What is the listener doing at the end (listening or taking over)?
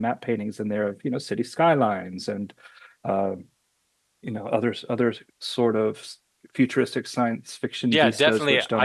taking over